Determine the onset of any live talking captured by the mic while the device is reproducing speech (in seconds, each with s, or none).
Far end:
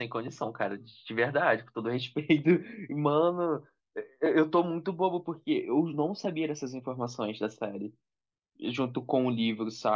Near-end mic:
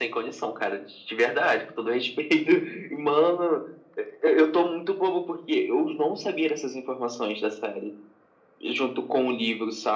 none